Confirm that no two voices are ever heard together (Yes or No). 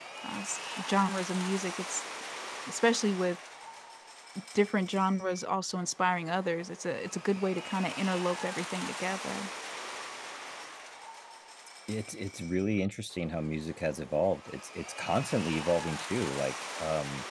Yes